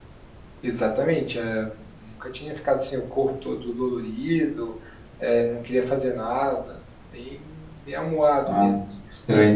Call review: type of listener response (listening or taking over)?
taking over